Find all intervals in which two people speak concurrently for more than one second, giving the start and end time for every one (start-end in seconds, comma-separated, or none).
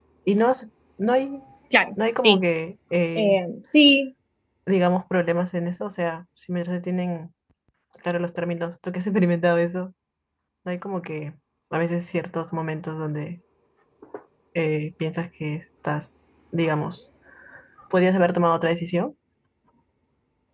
none